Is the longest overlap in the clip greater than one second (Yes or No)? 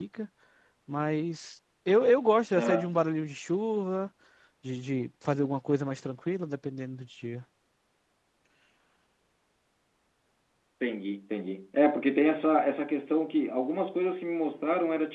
No